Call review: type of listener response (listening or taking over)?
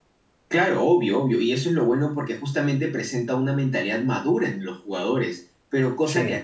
listening